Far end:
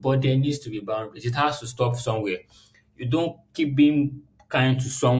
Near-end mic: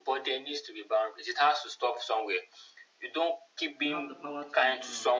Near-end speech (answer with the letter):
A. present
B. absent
A